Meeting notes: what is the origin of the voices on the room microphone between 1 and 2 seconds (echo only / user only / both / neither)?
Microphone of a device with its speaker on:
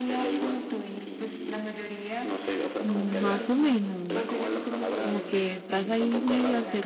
echo only